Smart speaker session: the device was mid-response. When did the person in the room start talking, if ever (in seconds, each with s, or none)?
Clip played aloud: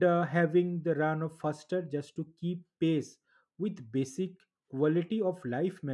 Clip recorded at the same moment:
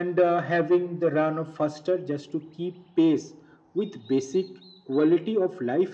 none